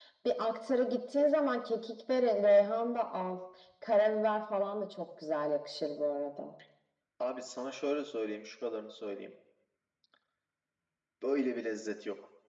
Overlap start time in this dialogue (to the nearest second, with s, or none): none